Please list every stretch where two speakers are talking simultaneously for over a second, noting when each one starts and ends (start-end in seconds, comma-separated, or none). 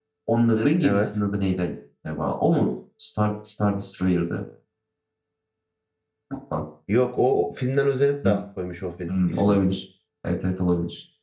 none